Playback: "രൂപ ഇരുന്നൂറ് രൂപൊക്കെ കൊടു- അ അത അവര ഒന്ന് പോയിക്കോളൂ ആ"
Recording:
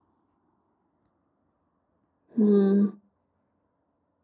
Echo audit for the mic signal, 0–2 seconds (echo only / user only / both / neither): neither